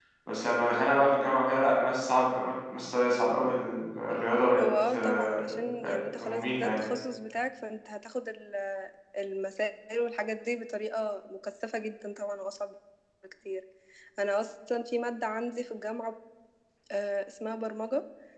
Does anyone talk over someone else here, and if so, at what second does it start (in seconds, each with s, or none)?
4.6 s